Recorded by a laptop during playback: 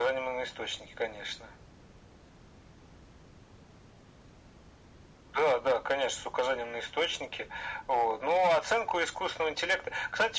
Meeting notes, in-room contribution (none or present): none